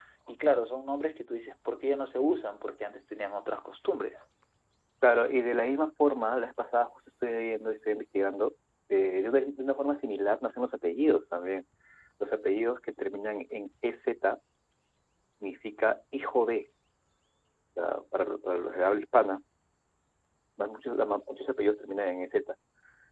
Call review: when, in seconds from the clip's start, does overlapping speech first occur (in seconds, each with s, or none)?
none